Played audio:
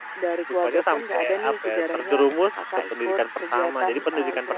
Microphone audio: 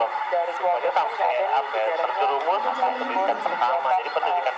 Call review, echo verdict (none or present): present